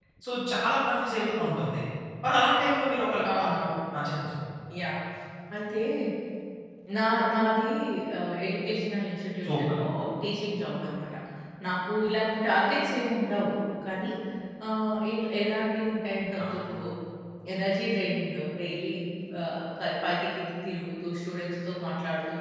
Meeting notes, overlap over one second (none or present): none